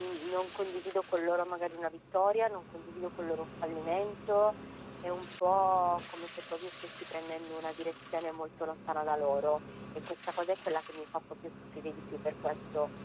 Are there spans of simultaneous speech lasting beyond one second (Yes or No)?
No